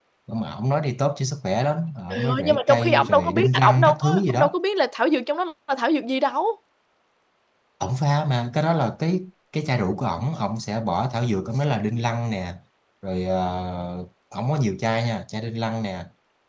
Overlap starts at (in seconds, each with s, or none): 2.1 s